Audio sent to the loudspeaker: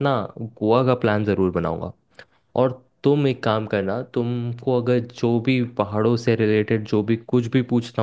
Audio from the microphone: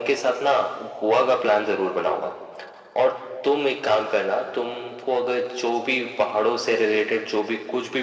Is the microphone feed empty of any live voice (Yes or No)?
Yes